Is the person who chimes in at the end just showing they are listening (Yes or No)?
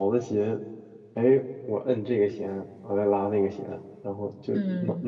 Yes